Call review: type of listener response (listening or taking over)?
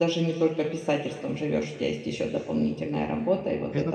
listening